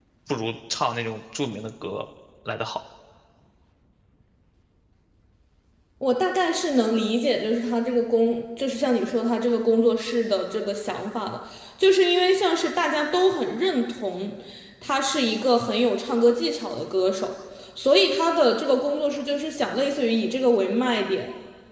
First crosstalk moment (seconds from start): none

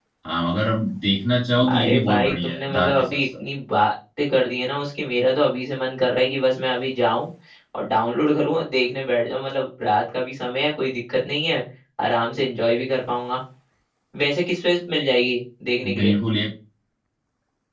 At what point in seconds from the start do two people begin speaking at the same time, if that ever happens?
1.7 s

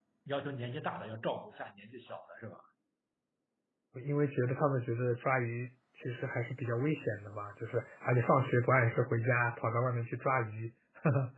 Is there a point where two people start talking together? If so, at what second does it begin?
none

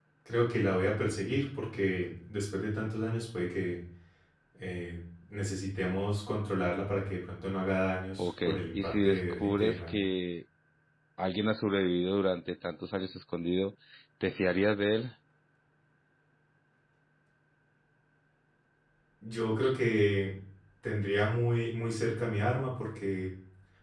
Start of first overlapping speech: 8.2 s

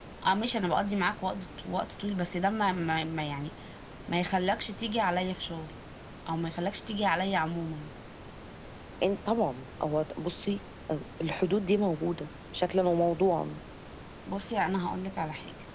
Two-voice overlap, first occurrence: none

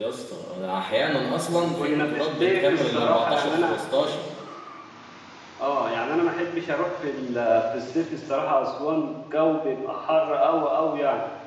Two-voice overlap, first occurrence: 1.8 s

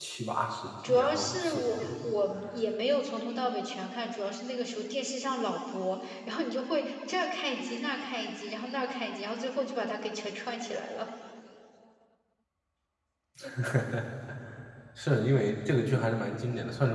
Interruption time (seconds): 0.9 s

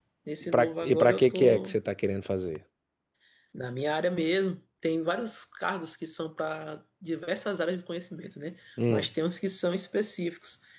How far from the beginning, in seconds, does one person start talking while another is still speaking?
0.5 s

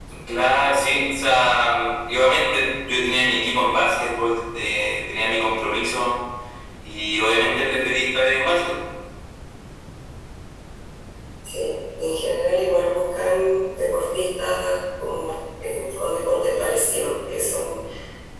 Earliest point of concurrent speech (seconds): none

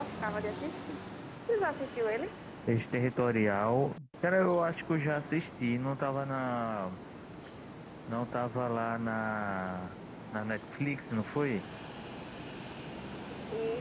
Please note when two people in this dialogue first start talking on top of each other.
none

